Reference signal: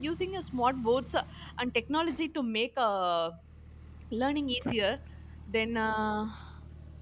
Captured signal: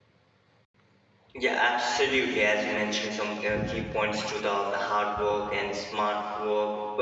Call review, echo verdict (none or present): none